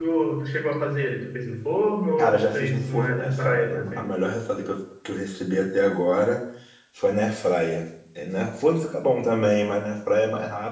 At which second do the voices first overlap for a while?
2 s

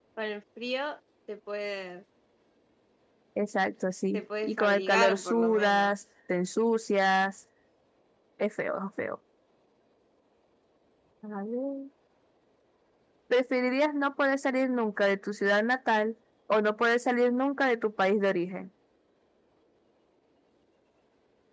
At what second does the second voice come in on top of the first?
4 s

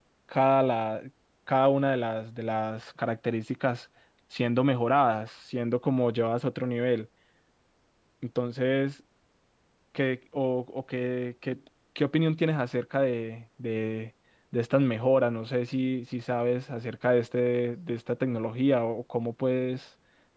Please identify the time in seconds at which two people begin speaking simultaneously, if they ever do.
none

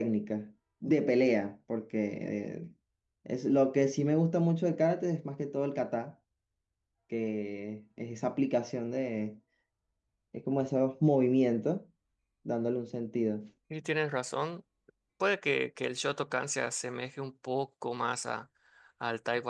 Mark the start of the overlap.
none

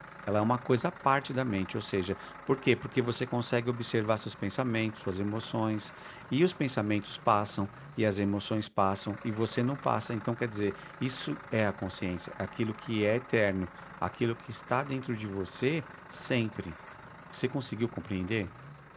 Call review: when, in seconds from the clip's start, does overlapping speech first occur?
none

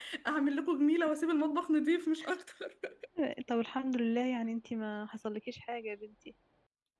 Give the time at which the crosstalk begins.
none

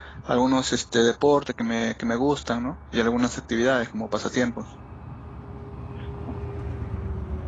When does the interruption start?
none

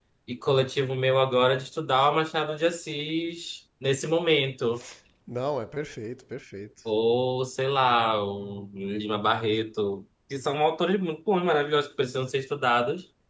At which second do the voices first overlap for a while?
none

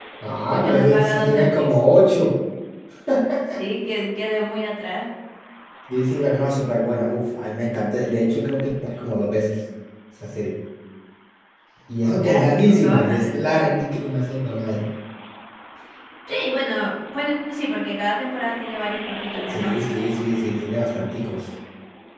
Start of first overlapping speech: 1 s

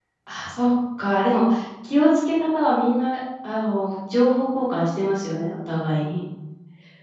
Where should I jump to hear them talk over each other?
none

